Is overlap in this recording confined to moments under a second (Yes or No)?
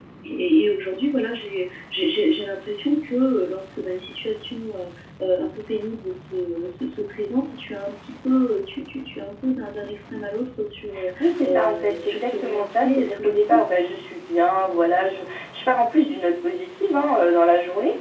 No